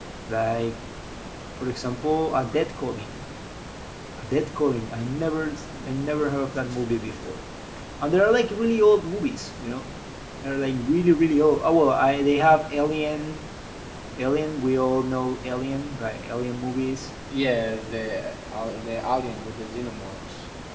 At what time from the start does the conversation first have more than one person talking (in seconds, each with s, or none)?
none